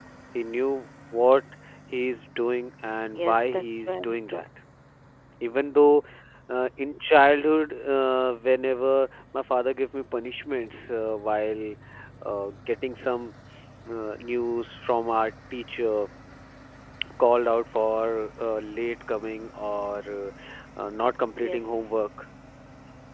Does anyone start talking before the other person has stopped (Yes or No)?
Yes